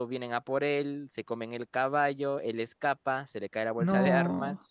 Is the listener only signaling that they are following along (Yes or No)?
Yes